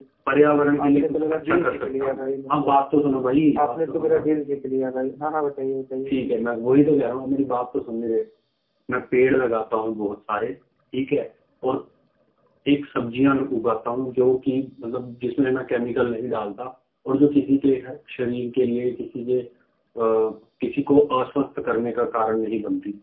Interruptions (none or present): present